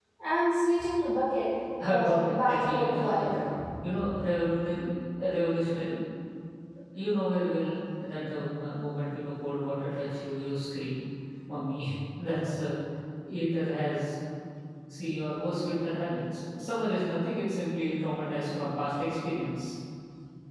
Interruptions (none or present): present